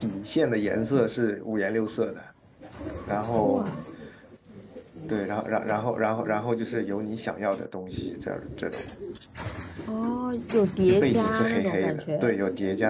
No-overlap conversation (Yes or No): No